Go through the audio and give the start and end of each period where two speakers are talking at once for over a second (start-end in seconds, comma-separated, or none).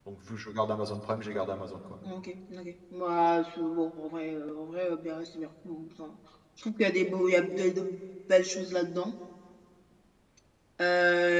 none